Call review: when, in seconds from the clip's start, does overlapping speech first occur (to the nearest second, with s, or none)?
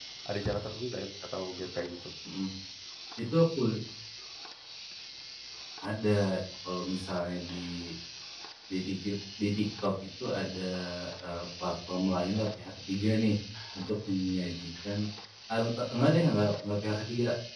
none